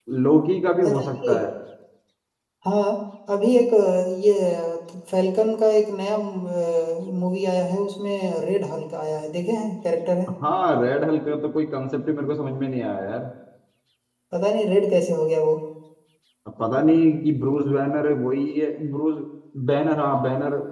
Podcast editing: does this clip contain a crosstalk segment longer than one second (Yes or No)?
No